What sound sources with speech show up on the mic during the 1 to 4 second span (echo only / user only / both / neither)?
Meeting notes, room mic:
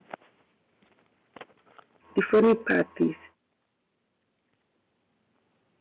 user only